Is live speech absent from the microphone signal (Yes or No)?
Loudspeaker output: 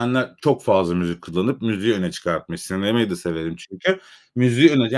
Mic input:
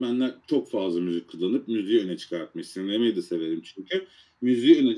Yes